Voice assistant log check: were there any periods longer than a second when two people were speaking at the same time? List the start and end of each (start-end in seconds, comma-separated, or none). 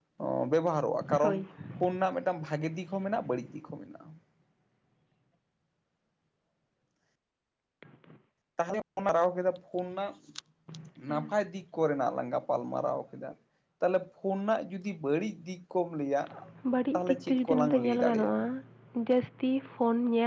16.9-18.4